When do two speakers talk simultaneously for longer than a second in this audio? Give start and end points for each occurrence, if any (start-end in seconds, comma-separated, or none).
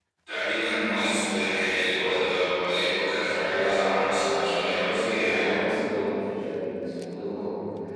3.1-5.6